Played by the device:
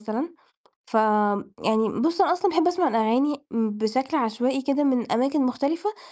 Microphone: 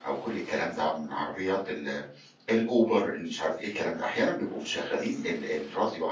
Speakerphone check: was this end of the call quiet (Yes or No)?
No